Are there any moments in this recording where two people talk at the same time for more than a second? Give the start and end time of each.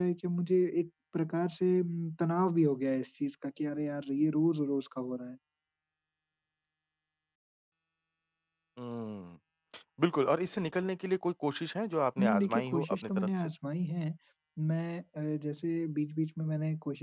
12.2-13.5

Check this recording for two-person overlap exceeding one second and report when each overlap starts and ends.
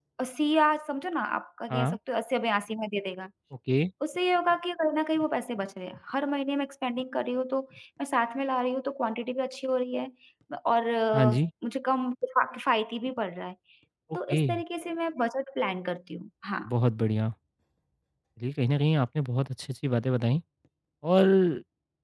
none

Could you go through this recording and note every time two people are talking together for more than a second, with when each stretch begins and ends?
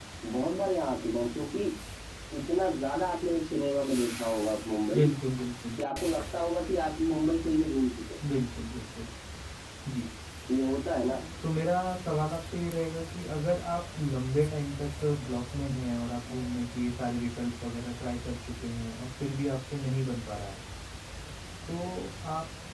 none

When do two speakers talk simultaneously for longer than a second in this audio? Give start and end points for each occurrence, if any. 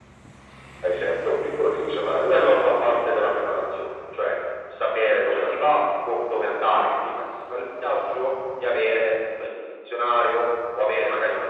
2.3-3.6

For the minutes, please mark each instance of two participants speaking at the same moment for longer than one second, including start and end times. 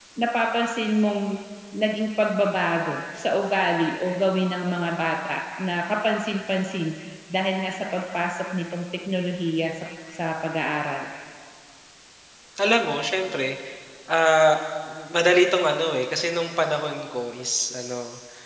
none

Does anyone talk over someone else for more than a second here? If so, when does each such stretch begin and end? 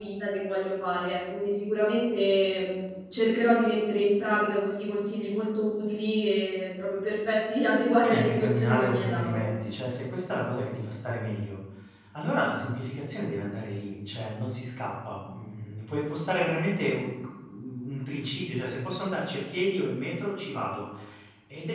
8.0-9.4

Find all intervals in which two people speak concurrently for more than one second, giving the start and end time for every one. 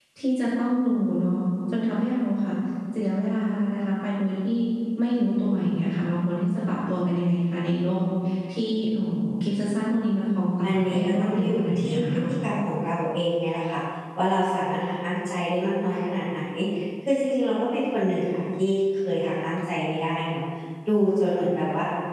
10.6-12.0

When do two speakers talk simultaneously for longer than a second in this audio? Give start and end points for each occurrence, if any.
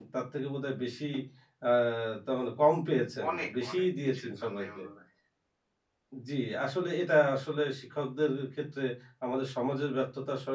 3.3-4.8

